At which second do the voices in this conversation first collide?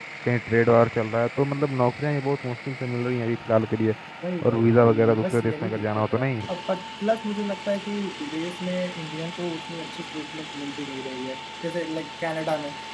4.5 s

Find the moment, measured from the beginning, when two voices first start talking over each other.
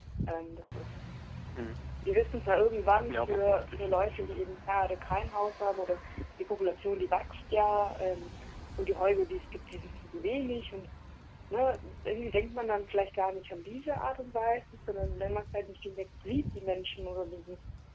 3.1 s

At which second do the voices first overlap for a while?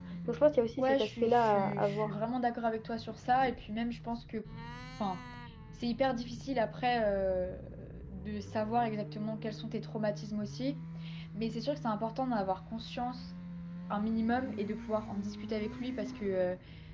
0.8 s

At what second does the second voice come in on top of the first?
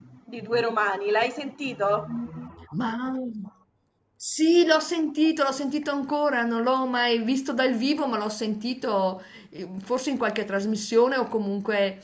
none

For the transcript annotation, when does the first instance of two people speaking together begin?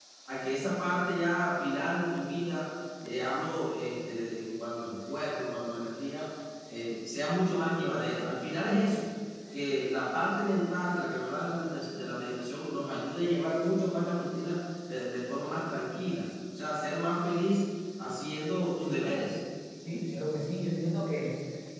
none

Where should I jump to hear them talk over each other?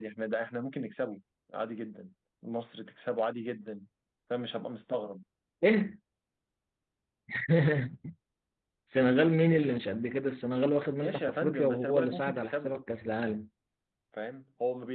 11.0 s

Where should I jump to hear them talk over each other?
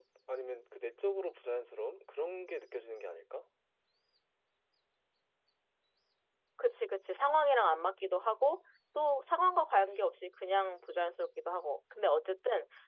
none

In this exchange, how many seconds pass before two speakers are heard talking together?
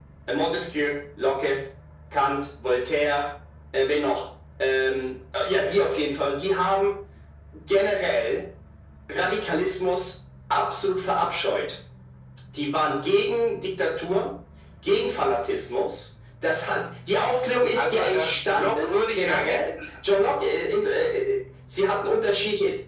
17.7 s

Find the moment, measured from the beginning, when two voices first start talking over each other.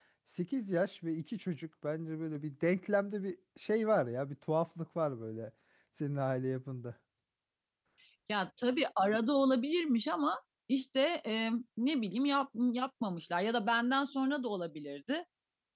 none

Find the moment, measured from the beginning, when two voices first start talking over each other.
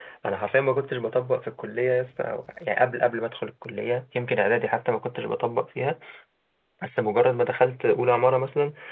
none

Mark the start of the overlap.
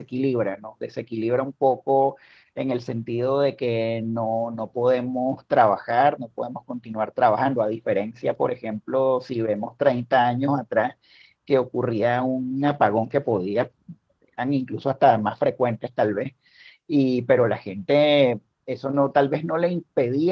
none

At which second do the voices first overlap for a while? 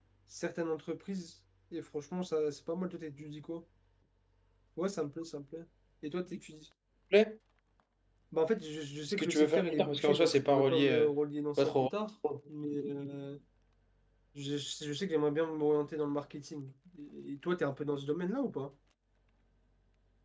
9.1 s

